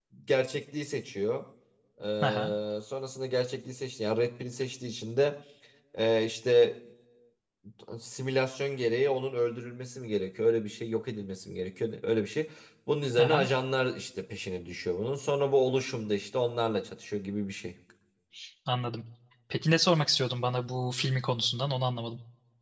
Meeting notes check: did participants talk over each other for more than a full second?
No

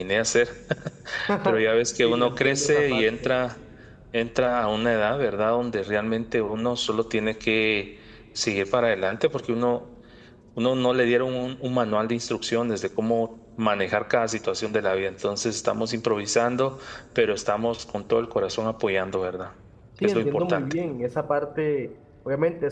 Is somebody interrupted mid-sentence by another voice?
Yes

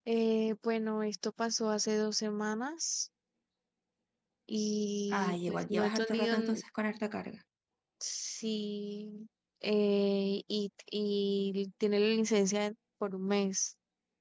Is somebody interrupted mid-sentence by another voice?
Yes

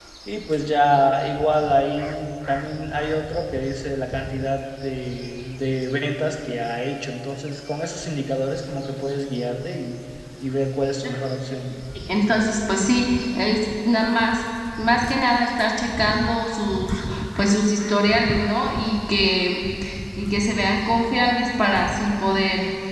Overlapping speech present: No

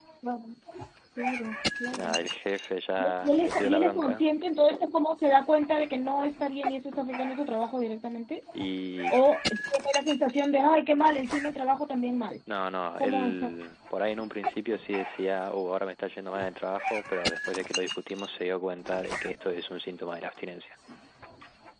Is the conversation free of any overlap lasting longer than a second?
No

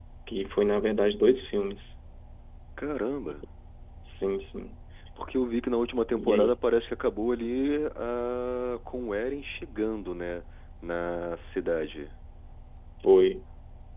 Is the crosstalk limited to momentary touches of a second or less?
Yes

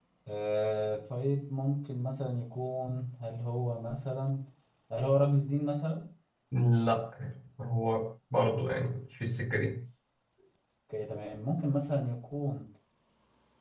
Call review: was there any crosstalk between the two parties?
No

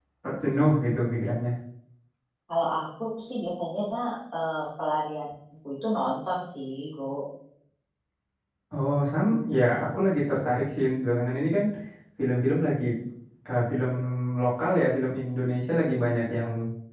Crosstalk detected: No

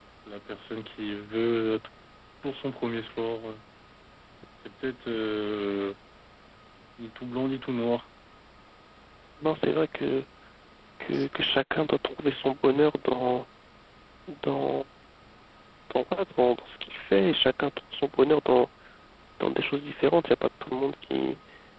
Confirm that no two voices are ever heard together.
Yes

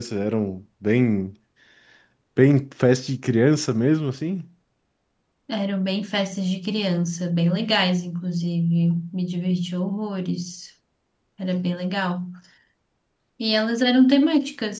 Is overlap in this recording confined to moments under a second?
Yes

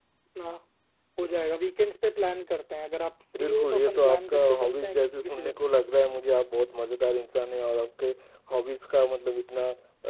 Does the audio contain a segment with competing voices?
Yes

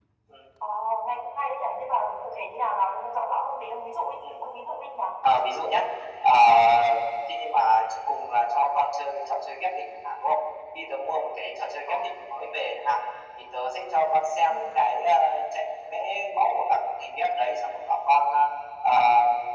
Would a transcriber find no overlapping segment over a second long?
Yes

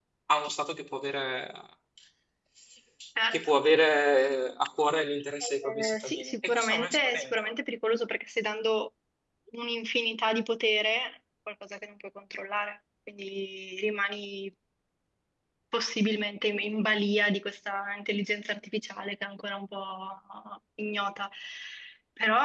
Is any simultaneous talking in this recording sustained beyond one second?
Yes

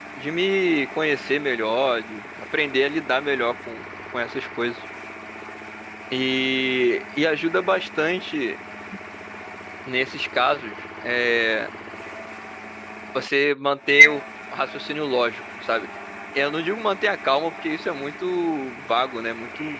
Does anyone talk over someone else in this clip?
No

